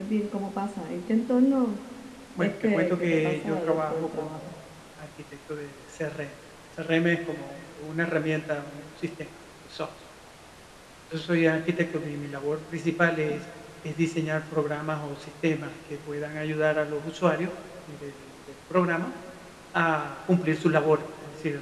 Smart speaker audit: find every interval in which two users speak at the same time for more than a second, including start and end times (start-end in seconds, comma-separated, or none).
2.4-4.5